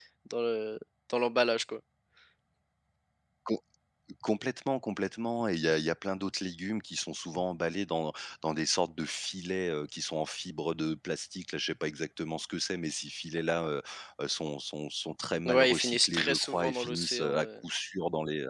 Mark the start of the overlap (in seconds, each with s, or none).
15.4 s